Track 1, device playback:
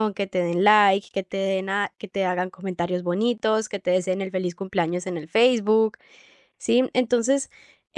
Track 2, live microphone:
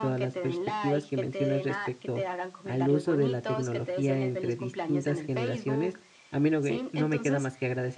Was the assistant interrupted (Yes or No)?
Yes